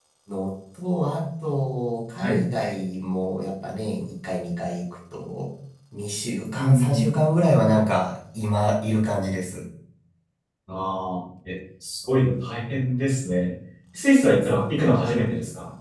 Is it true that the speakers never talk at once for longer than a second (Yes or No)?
Yes